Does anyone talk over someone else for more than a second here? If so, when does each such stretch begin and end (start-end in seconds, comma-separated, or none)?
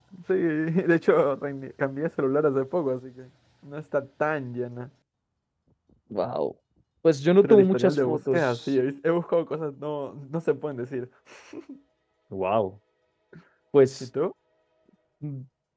7.4-8.7